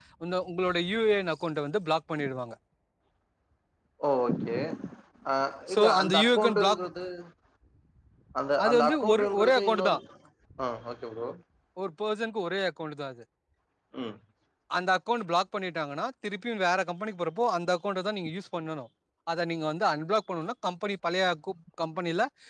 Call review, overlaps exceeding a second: present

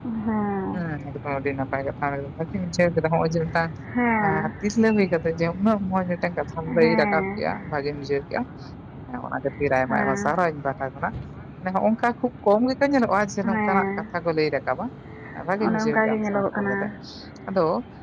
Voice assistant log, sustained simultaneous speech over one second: present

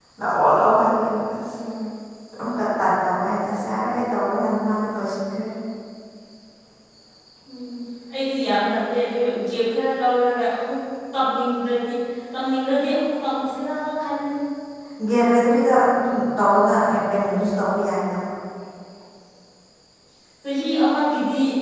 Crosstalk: none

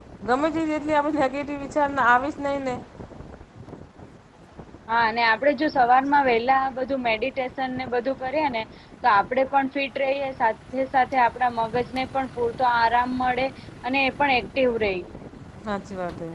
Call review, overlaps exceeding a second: none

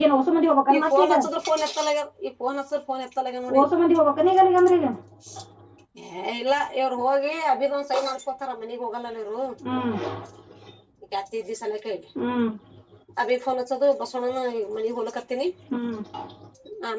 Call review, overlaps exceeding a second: none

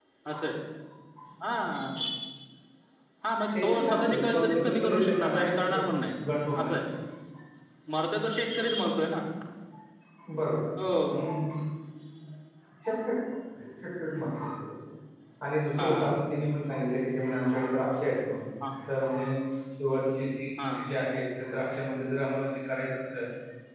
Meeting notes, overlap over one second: present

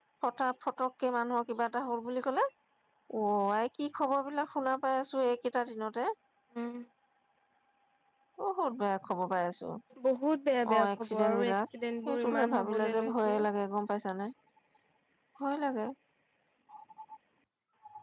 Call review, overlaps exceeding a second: present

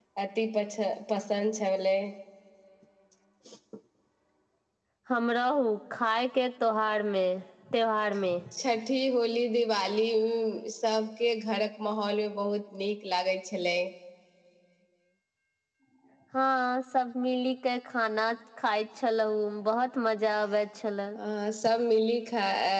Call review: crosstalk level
none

